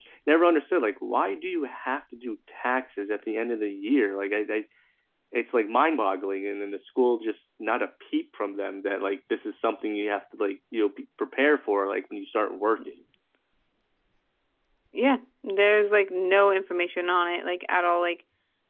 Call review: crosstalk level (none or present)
none